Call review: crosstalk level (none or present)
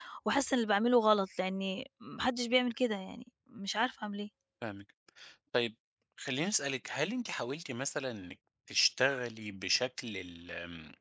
none